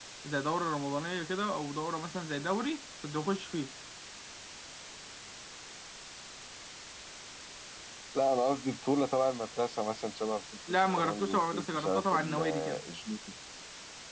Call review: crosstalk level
present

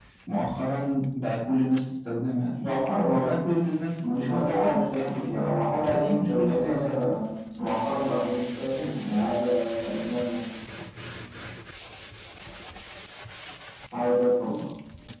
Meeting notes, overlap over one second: present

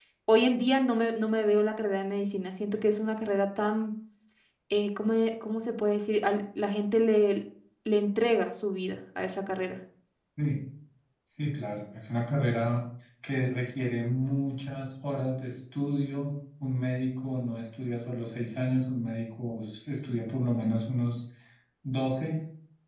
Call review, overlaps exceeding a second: none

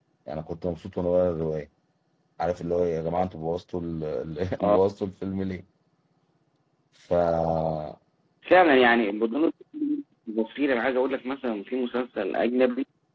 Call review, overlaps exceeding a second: none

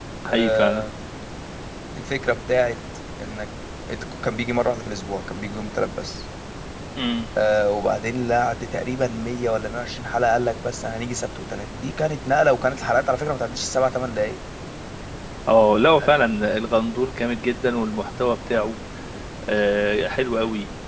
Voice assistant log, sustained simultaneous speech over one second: none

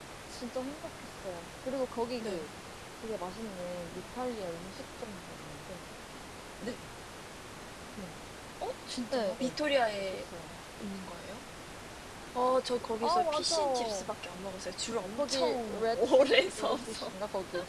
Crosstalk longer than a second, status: present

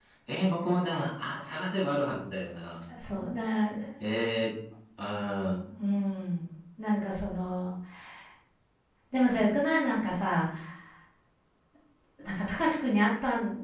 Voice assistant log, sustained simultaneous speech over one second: none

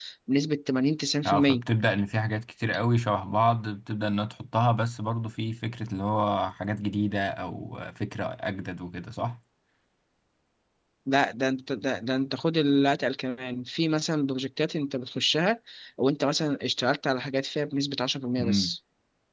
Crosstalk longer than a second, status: none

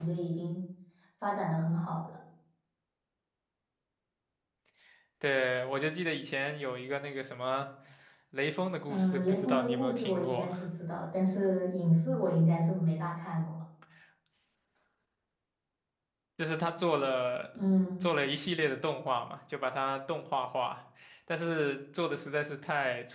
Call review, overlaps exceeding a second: present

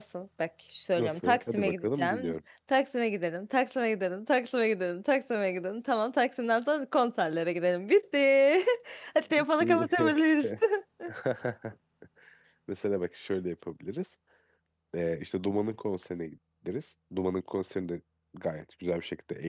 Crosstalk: present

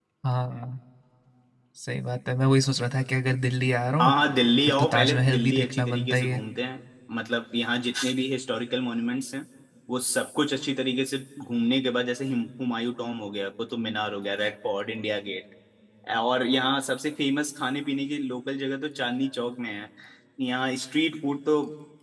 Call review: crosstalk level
present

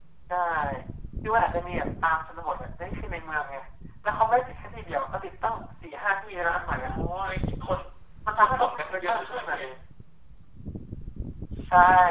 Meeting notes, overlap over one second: present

